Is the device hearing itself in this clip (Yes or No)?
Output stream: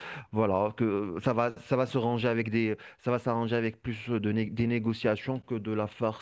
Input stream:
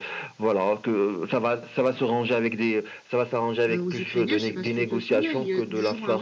Yes